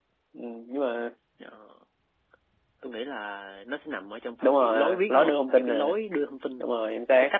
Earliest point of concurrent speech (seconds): 4.4 s

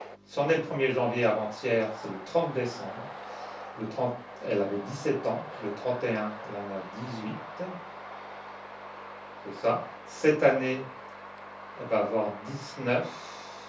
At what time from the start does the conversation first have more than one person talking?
none

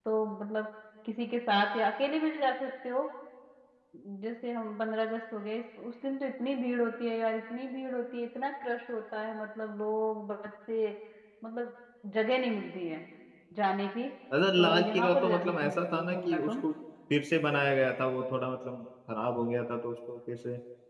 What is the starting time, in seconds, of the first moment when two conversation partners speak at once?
14.6 s

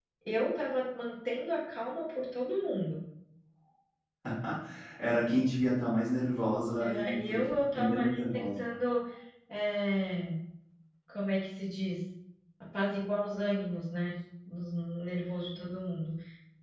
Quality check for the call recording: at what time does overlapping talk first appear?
6.8 s

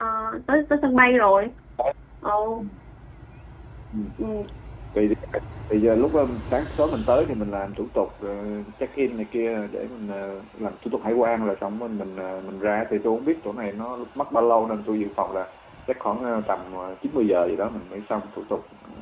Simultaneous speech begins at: none

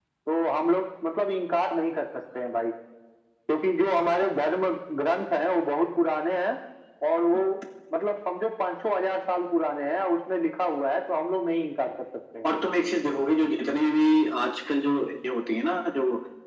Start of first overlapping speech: none

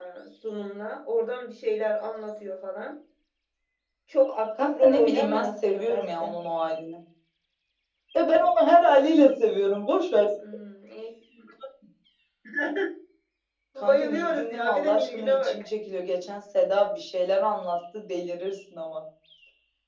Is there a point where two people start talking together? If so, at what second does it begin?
4.6 s

